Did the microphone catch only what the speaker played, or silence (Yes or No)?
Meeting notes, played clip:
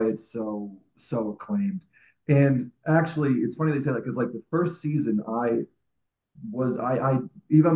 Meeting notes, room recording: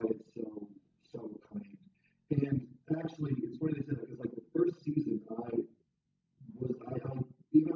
Yes